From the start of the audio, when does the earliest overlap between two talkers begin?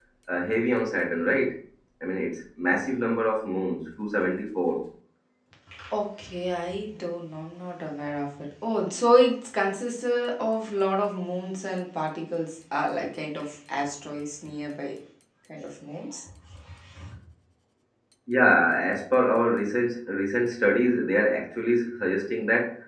none

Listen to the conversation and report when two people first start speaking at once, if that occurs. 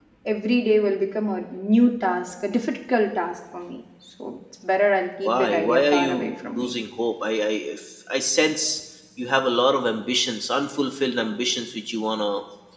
5 s

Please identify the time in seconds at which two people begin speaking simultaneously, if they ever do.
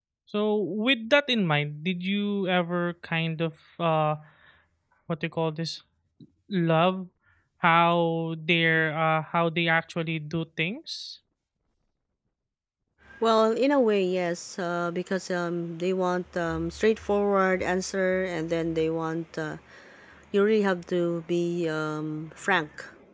none

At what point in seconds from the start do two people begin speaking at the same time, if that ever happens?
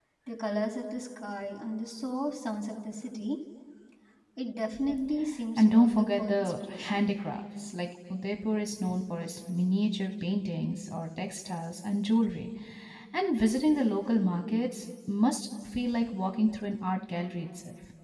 6 s

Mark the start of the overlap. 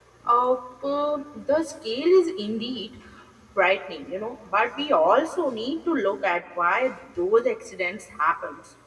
none

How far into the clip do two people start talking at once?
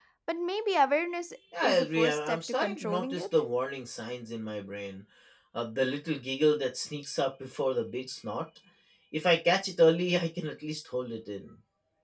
2 s

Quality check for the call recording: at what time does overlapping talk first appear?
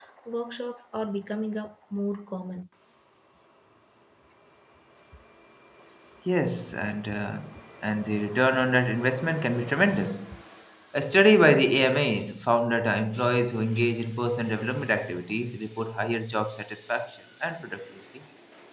none

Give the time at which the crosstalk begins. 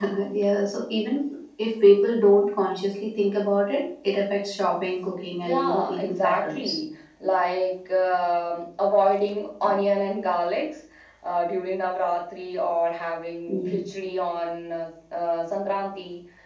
5 s

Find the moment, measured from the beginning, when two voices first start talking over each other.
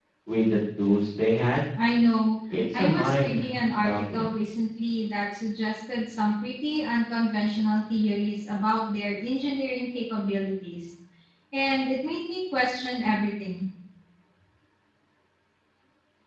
3 s

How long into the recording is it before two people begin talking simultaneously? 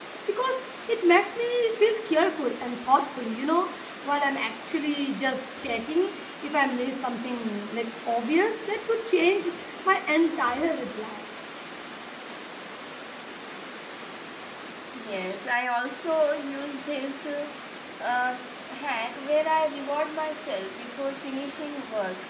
none

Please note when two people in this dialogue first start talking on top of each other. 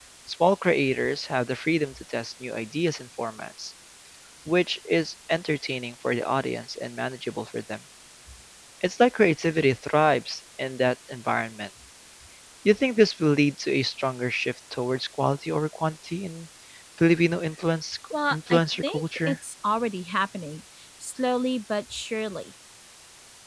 18 s

